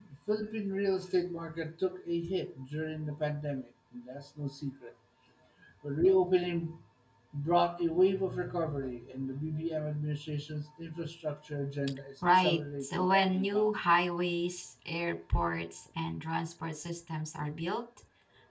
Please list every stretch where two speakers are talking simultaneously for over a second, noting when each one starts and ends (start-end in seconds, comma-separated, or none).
12.4-13.7